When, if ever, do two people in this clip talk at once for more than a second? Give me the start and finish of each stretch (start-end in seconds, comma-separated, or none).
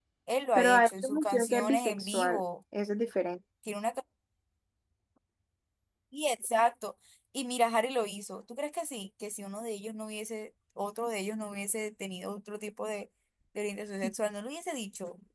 0.6-2.4